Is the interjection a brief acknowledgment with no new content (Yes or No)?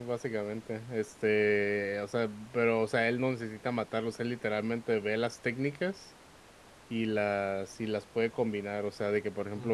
Yes